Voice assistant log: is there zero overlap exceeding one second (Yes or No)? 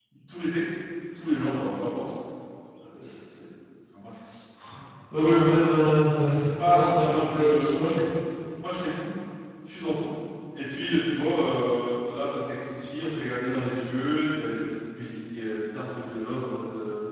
No